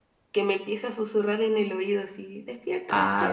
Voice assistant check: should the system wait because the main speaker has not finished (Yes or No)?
No